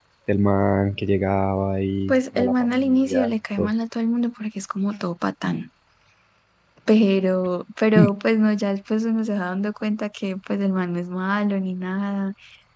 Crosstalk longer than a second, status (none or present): present